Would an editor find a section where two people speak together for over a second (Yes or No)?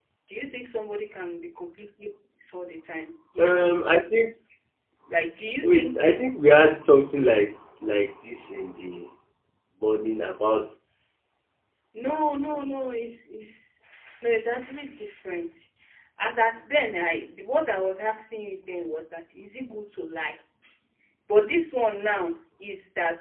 No